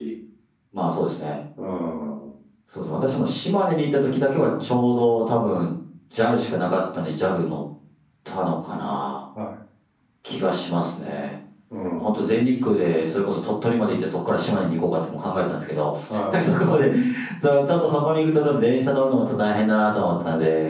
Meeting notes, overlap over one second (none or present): none